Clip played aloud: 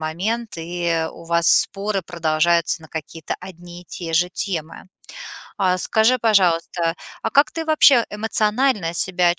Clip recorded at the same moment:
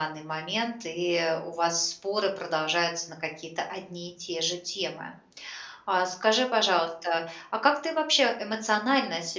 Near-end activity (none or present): none